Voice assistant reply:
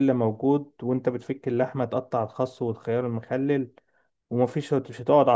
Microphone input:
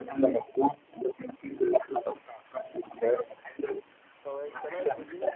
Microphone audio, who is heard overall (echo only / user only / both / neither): both